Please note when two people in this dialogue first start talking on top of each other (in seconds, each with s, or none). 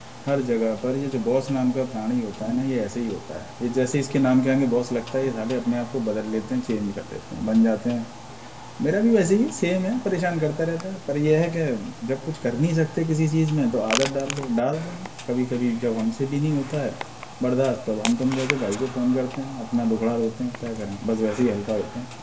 none